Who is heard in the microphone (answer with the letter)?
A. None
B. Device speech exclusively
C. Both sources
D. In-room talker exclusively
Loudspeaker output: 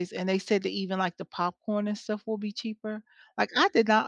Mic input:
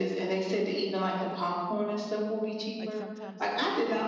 C